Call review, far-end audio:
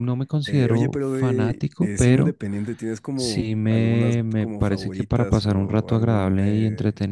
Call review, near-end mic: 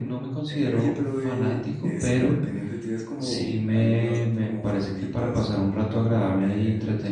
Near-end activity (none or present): none